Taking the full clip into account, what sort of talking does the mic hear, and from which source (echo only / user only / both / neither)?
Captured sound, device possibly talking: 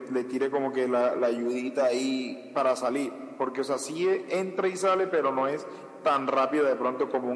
echo only